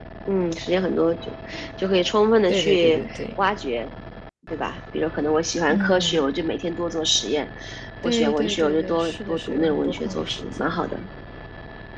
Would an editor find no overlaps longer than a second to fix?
No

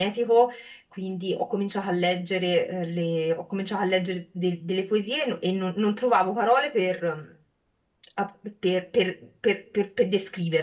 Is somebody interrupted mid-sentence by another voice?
No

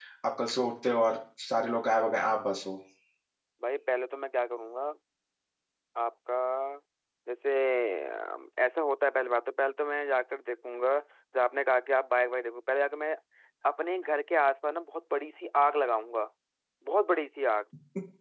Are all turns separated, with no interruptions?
Yes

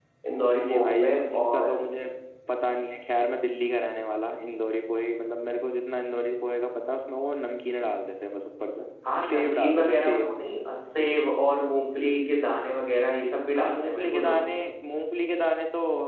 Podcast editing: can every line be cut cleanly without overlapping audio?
No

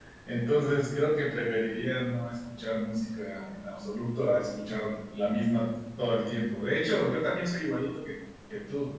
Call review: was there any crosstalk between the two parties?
No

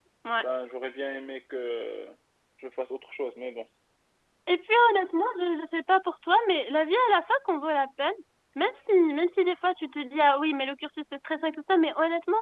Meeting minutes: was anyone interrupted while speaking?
No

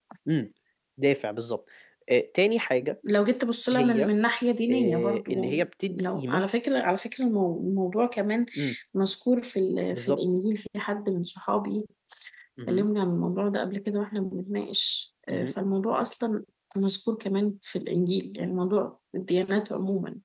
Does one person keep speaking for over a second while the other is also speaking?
Yes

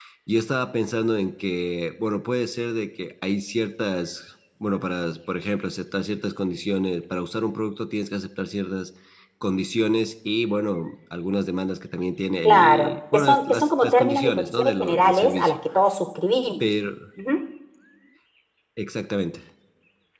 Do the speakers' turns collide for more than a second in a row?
Yes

